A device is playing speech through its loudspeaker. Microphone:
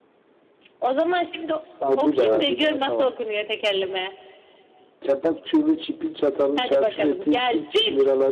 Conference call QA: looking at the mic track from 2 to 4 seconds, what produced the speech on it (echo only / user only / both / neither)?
echo only